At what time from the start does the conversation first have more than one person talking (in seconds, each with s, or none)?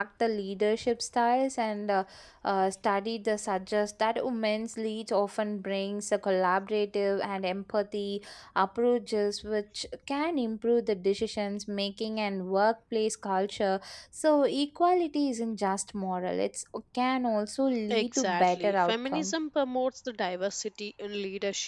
17.9 s